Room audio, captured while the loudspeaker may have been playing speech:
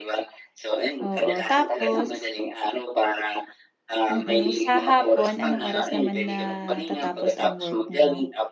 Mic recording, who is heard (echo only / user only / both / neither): both